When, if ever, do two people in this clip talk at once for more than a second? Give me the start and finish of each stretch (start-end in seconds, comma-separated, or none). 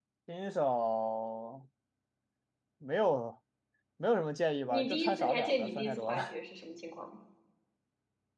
4.7-6.4